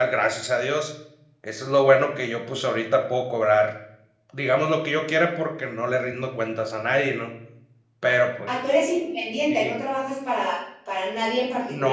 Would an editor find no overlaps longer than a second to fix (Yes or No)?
Yes